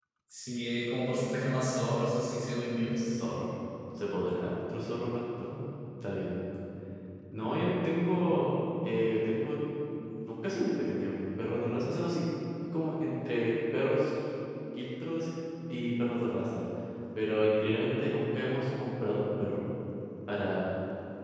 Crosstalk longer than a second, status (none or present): none